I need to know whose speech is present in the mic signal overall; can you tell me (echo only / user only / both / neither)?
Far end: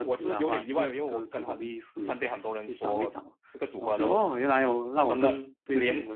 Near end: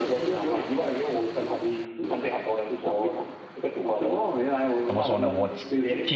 both